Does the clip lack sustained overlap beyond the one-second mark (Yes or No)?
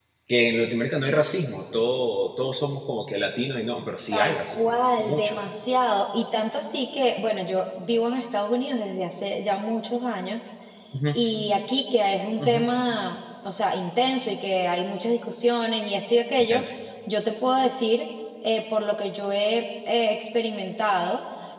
No